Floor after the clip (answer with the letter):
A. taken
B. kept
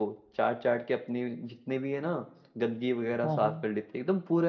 B